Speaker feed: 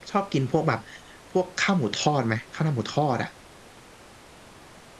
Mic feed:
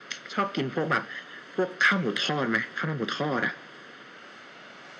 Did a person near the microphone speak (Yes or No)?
No